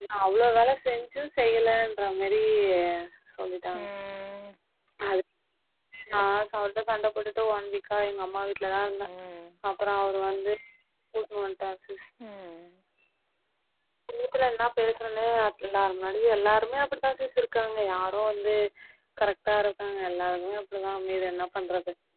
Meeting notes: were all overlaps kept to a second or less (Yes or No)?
Yes